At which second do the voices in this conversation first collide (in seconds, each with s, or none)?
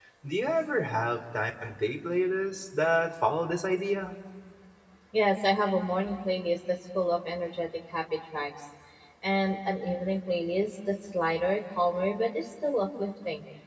none